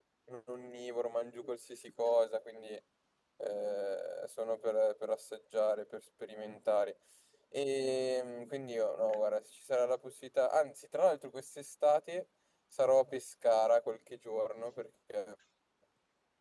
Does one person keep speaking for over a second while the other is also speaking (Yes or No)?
No